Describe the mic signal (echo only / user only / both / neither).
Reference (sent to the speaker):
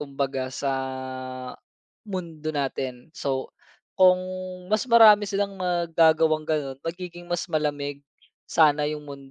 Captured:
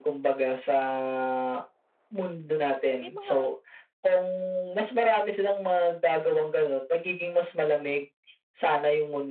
both